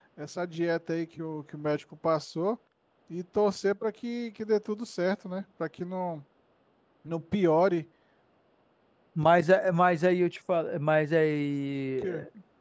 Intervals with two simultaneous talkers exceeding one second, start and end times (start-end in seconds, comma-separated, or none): none